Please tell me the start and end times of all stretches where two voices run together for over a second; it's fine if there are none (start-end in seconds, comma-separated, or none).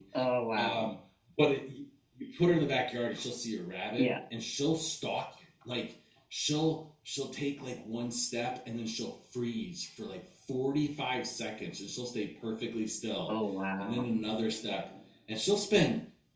none